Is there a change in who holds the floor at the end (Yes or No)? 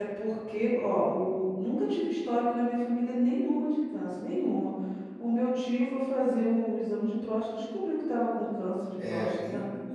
Yes